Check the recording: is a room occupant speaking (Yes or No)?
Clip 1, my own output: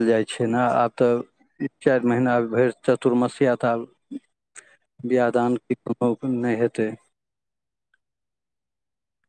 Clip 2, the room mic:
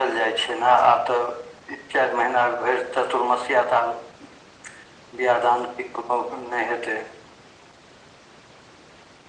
No